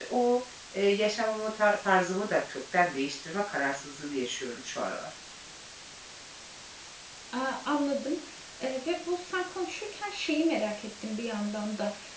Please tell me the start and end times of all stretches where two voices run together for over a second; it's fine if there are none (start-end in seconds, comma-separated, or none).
none